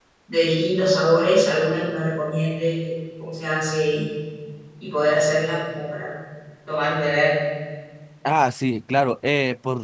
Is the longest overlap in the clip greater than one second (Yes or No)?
No